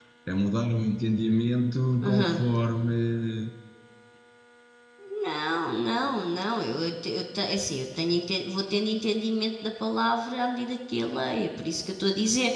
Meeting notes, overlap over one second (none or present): none